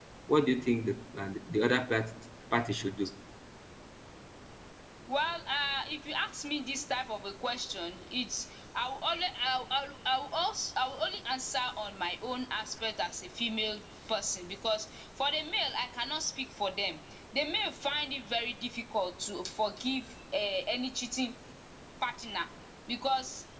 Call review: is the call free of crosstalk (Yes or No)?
Yes